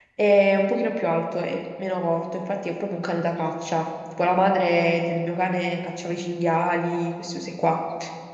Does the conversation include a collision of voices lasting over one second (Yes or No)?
No